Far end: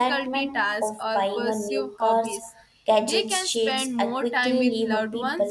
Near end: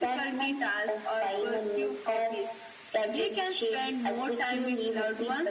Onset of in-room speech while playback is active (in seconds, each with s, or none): none